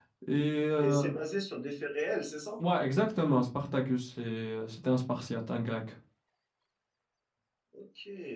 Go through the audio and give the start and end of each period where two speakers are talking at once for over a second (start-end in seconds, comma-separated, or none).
none